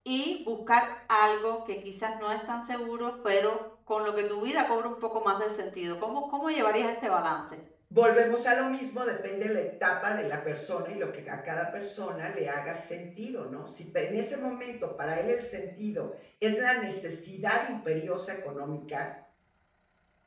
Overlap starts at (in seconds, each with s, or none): none